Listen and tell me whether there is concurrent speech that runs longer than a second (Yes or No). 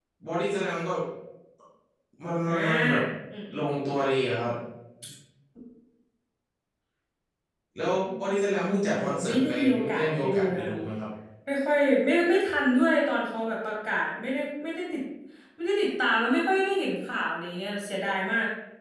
Yes